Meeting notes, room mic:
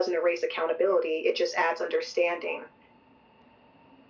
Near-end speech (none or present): none